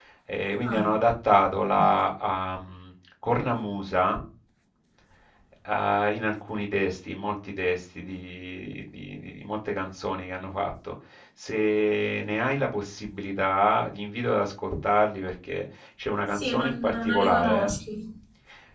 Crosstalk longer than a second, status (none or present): present